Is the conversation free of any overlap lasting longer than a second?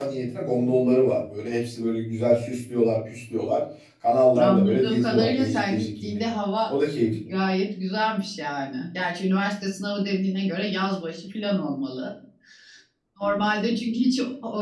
No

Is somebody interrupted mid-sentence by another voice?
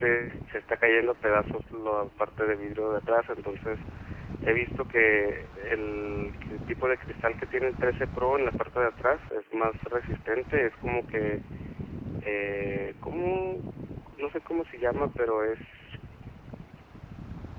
No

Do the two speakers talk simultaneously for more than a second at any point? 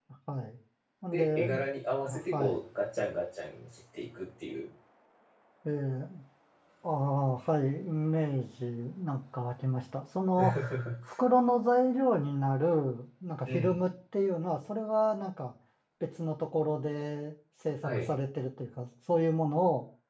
No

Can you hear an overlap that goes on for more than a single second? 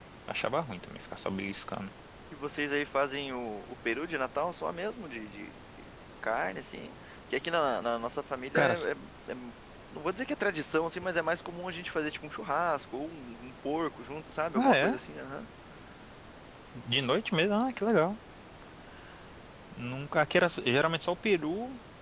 No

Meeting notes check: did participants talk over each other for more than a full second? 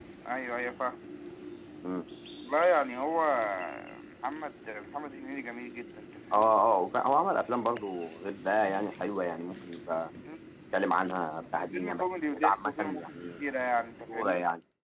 Yes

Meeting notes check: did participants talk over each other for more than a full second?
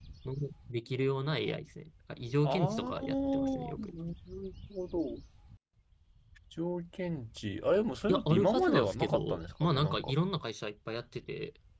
Yes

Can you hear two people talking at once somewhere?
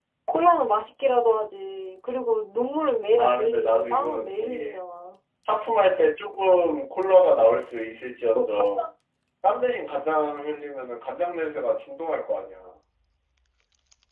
Yes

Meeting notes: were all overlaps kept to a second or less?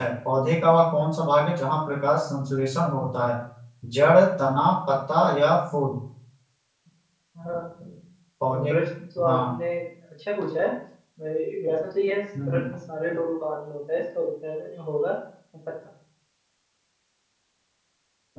Yes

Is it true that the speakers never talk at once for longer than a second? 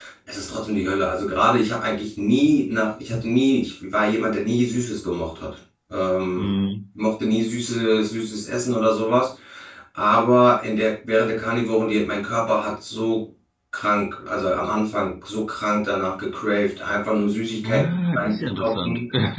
No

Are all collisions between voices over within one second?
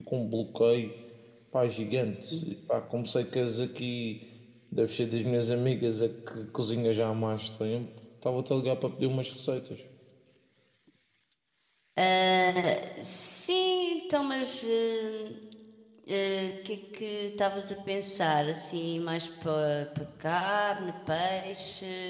Yes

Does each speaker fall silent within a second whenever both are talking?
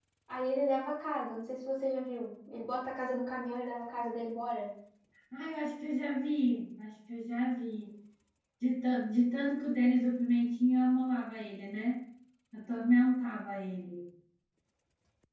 Yes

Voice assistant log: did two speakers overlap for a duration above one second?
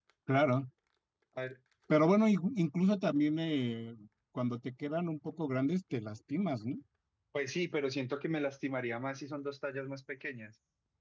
No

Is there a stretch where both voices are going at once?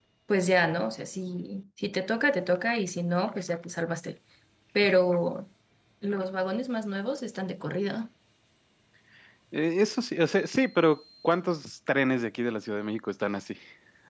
No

